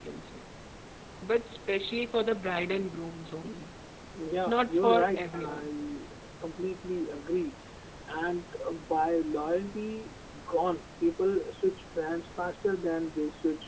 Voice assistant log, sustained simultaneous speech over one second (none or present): present